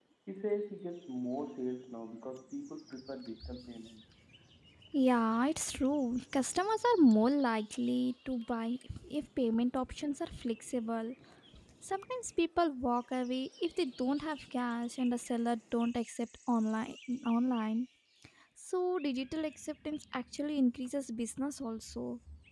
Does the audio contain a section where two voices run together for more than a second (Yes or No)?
No